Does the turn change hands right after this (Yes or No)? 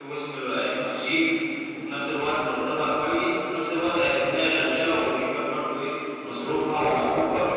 Yes